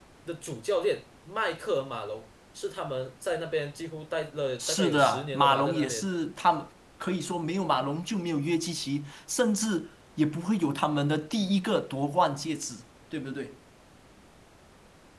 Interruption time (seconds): 4.6 s

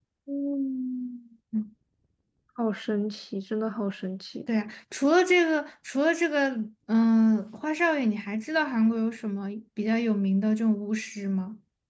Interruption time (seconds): none

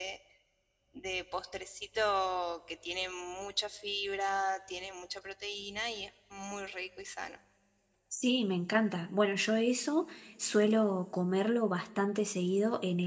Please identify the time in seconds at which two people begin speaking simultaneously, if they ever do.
none

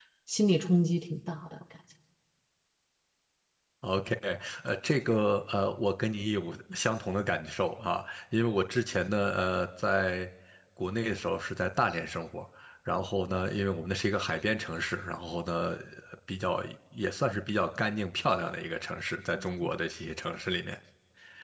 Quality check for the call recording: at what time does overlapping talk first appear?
none

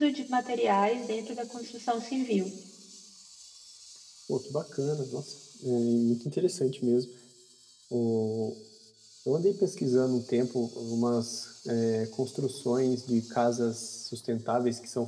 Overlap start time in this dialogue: none

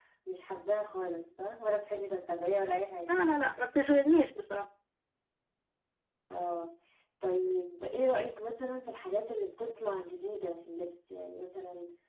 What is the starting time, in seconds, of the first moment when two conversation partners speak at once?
none

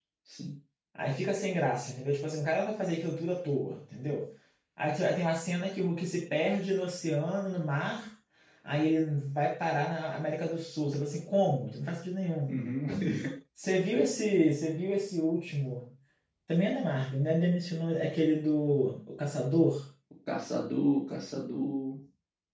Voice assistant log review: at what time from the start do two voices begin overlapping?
none

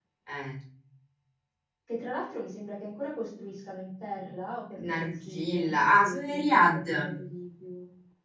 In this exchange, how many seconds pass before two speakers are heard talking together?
4.8 s

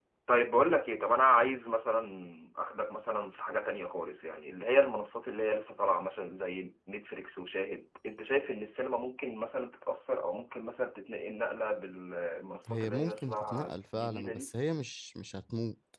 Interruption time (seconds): 12.6 s

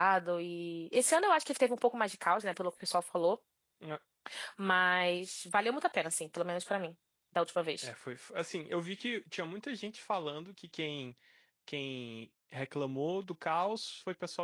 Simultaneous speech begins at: none

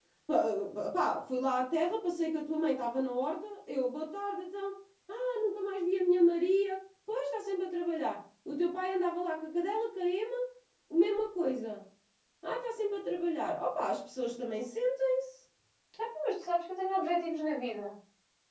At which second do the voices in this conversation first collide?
none

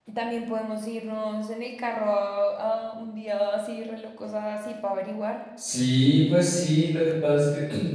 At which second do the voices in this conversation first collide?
none

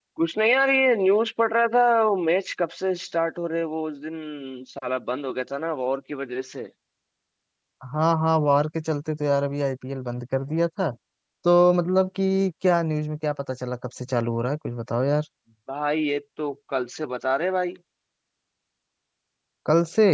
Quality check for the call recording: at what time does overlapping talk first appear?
none

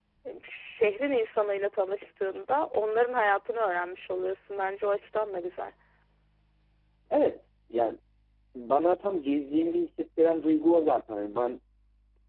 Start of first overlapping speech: none

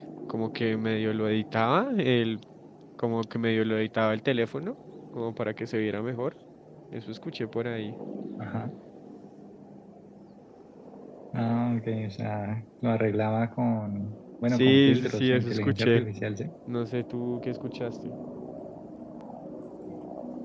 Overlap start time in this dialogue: 14.5 s

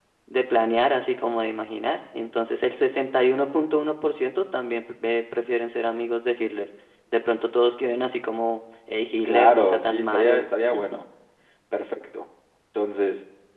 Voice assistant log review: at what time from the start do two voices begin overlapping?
9.1 s

